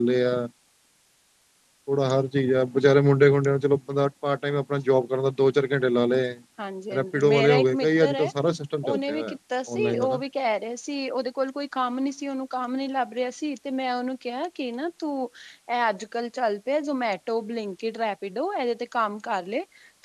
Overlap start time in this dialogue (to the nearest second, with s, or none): 7 s